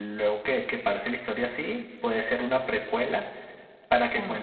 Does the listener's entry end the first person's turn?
No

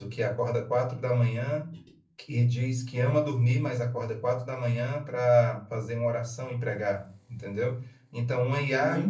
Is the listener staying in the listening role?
Yes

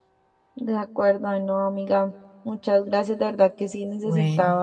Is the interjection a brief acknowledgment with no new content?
Yes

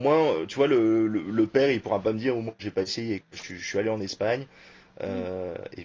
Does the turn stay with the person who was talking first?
Yes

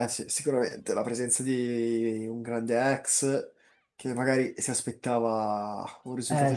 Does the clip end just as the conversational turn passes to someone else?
Yes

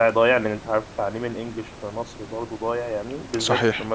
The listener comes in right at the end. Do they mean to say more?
No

